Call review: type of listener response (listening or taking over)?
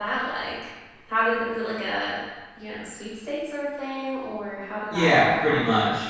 taking over